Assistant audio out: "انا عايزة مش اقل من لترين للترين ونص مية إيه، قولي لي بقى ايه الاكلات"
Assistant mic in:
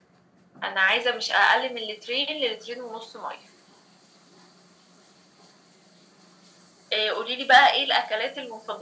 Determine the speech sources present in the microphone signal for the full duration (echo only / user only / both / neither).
echo only